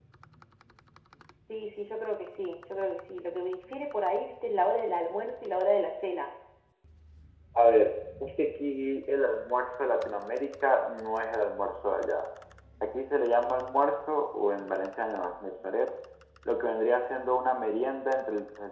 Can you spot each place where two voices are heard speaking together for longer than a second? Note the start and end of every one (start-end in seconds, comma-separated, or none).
none